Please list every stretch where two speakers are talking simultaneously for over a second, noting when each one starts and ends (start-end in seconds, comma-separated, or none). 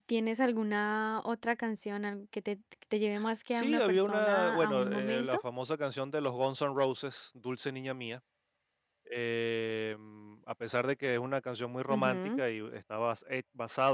3.5-5.4